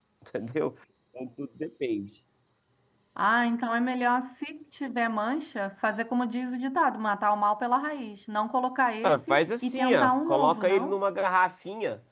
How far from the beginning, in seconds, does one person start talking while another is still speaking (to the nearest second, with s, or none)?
9 s